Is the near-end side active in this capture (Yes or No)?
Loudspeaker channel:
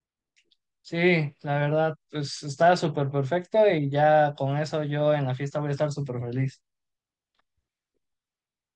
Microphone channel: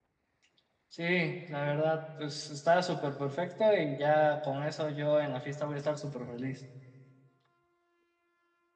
No